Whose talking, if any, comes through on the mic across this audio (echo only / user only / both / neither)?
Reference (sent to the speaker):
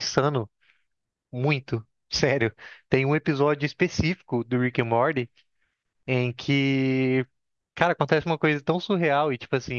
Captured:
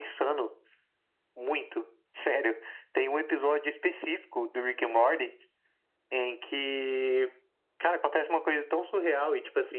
echo only